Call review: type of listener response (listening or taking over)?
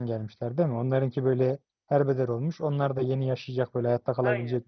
taking over